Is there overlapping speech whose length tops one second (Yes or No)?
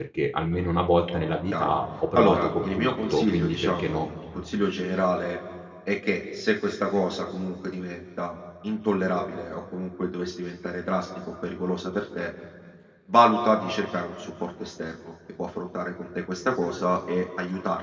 Yes